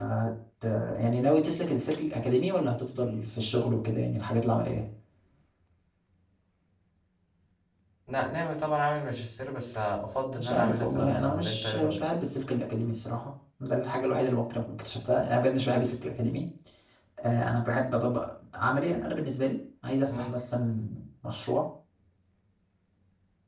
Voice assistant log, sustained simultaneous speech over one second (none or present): present